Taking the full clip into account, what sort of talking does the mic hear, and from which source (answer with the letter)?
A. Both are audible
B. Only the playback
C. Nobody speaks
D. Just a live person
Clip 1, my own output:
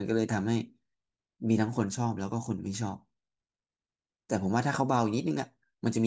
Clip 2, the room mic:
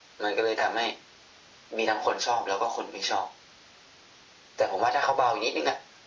B